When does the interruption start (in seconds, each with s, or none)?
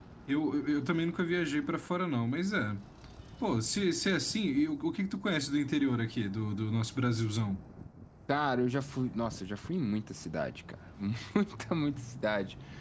none